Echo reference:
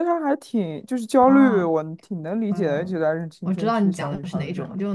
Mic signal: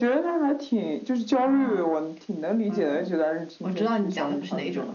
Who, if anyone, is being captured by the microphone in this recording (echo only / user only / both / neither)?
echo only